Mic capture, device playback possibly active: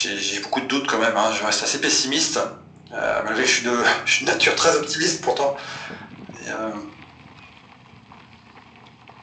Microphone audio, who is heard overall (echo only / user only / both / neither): echo only